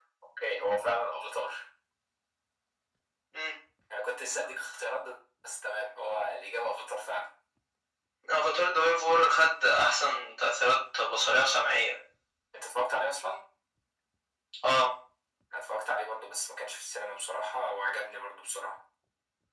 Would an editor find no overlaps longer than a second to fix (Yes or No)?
Yes